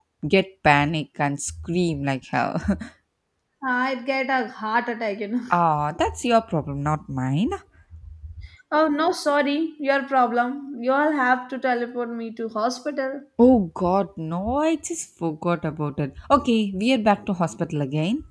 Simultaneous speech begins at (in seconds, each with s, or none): none